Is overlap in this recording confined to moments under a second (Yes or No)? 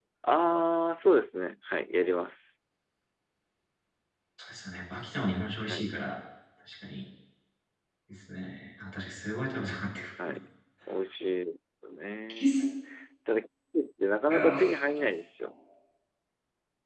Yes